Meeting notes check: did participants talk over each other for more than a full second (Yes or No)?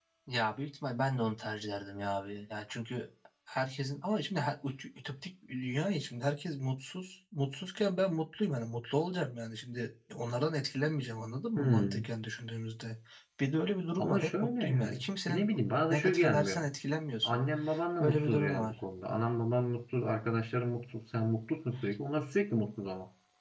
Yes